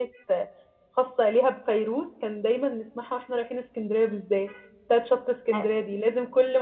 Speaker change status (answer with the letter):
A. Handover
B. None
B